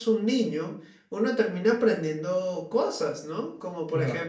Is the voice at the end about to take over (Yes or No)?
No